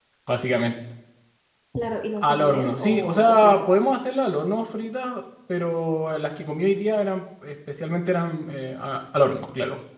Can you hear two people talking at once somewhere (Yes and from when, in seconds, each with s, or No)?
Yes, from 2.2 s